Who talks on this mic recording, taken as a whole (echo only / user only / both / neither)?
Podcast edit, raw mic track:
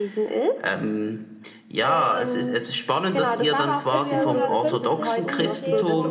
both